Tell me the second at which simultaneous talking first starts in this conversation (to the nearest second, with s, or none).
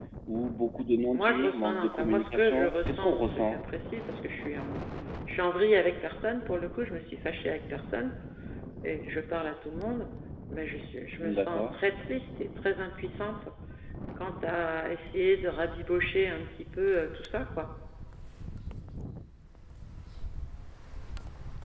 1 s